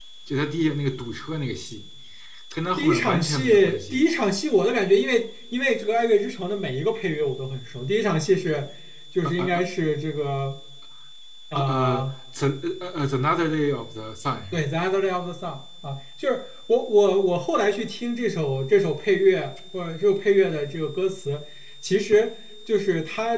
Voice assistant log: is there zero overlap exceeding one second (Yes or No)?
No